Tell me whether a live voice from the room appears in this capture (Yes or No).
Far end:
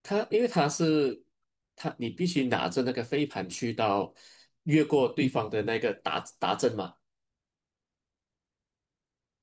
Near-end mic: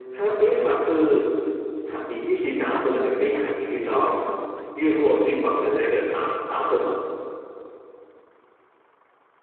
Yes